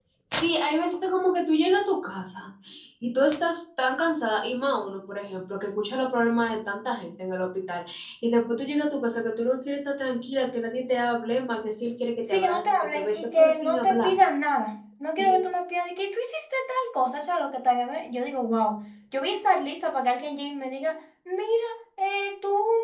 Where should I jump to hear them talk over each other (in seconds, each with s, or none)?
12.3 s